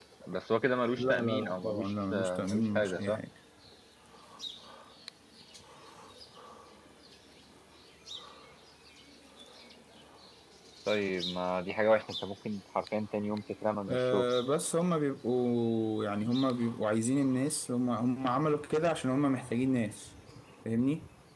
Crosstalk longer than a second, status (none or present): present